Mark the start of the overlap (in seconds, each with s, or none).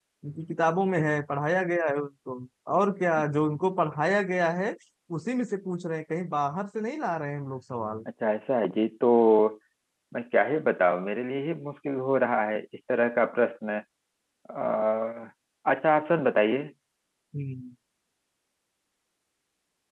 none